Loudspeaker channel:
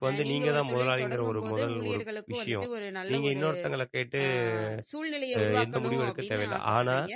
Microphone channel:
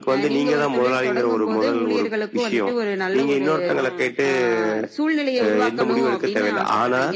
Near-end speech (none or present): present